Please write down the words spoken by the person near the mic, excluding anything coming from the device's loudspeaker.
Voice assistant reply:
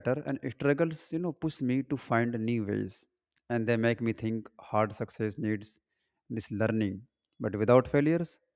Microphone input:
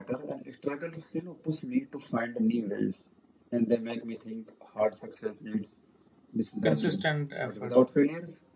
consistent effort

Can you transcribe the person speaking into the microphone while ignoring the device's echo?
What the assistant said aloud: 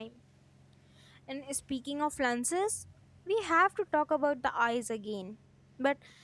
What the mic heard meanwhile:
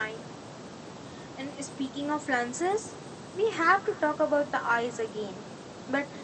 none

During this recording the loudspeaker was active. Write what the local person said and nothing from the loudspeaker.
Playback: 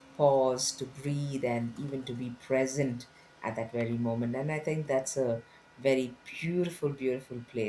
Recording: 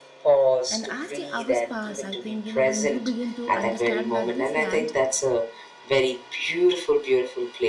and as the hours pass, I think, you know, when you begin to understand that this land,

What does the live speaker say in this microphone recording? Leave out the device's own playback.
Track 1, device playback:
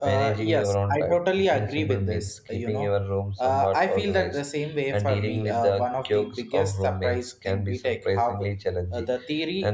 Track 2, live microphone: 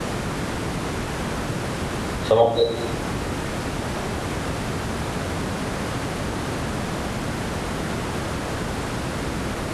So, what,

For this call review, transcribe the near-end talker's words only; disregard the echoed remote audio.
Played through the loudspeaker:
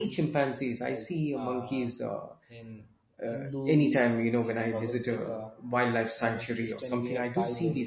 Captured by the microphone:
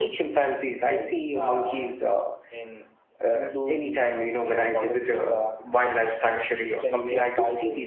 none

